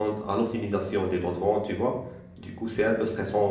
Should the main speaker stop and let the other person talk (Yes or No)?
No